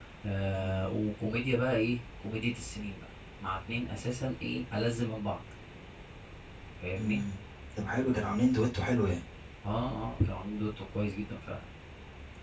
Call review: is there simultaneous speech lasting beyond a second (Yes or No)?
No